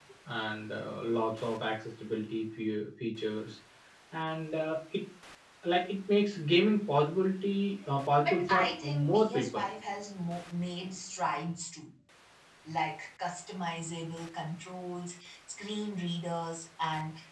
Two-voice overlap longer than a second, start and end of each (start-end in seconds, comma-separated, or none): 8.2-9.6